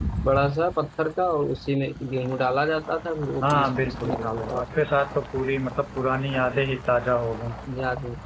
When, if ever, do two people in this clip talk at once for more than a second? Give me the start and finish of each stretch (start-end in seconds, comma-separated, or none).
3.4-4.6